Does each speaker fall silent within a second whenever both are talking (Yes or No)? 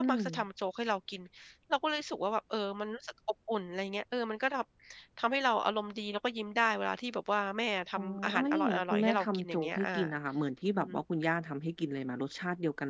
No